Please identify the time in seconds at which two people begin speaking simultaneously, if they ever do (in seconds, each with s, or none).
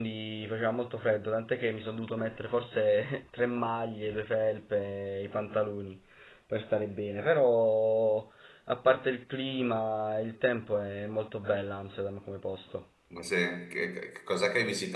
none